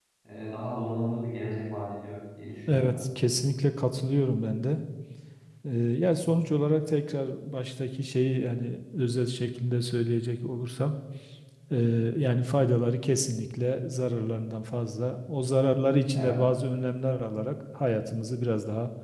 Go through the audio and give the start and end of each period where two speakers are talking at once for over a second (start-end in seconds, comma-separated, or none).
none